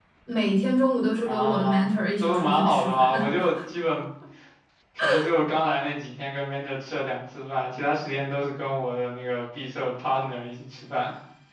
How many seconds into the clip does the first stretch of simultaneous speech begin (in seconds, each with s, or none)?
1.2 s